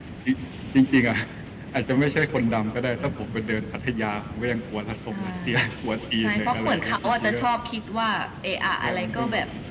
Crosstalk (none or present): present